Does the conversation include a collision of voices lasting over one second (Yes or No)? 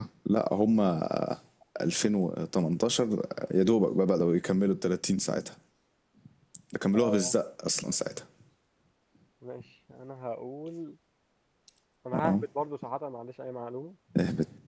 No